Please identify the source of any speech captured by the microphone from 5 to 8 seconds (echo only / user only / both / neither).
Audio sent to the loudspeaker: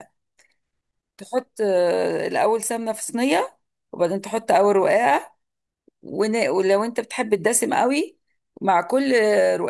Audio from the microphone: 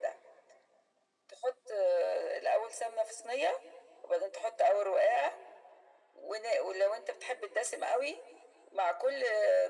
echo only